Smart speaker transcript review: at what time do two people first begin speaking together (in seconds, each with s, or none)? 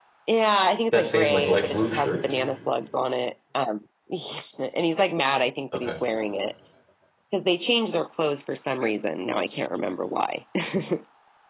0.9 s